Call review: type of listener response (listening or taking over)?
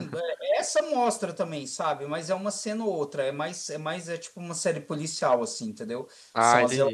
listening